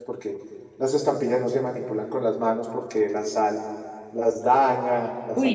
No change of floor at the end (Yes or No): No